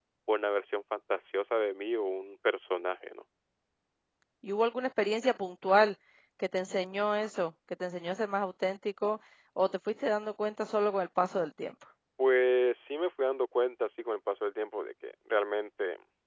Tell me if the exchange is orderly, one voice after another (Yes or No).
Yes